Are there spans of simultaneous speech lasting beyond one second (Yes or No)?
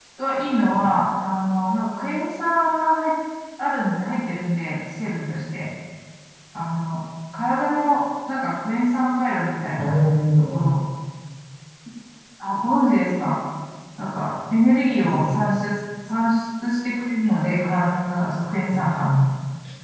No